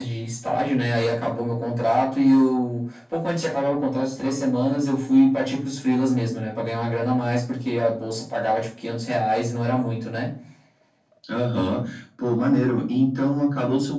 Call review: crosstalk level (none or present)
none